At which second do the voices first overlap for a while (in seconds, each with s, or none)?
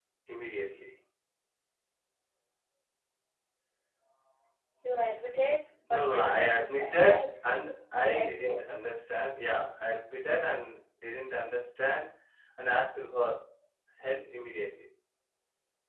5.9 s